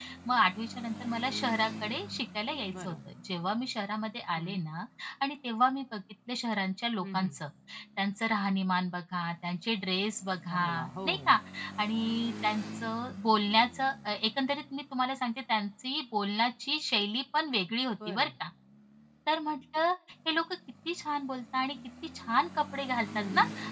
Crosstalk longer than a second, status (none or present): none